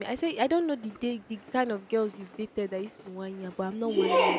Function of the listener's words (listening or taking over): taking over